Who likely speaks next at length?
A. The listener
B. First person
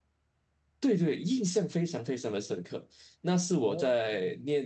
B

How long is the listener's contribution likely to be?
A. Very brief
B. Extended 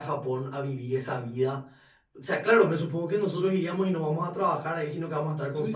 A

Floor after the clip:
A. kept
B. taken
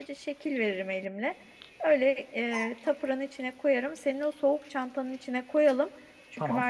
A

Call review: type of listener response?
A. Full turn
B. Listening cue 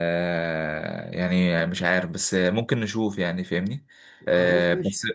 B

